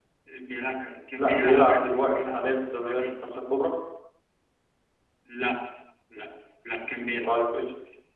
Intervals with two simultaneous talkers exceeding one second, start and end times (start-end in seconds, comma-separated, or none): 1.2-2.4